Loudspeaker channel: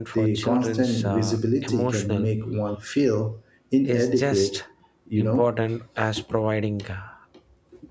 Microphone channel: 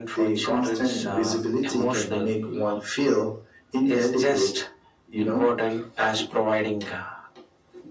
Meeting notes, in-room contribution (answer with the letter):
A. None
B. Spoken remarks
A